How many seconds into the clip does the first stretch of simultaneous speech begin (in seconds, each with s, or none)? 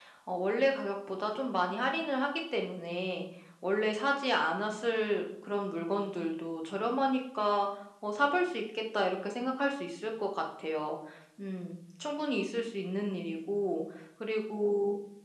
none